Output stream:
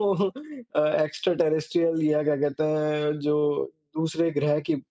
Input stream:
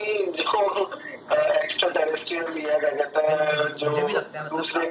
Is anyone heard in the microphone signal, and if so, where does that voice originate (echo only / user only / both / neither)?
both